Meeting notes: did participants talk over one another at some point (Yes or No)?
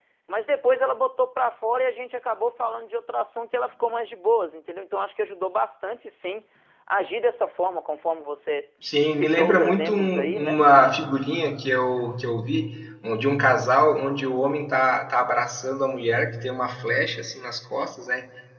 Yes